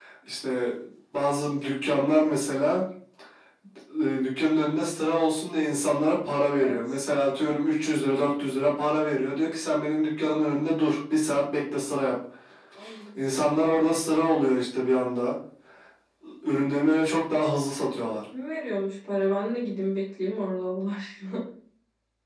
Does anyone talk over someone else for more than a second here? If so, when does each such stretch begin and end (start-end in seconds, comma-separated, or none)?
none